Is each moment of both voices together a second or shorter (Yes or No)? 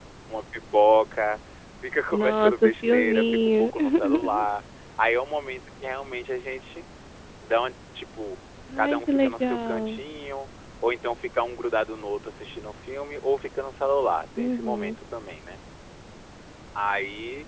No